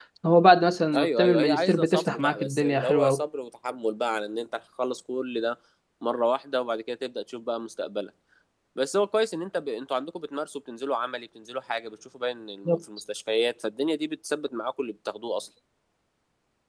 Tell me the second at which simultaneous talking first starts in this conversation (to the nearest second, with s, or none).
1 s